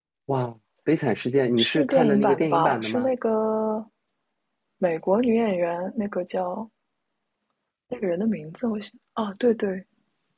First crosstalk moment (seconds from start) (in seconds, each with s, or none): 1.6 s